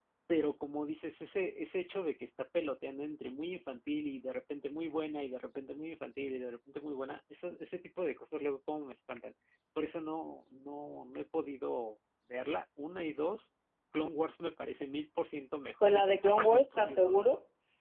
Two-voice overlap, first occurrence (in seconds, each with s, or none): 15.8 s